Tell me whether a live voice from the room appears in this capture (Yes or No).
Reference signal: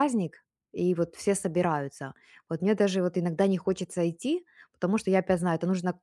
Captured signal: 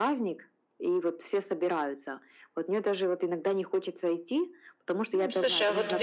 Yes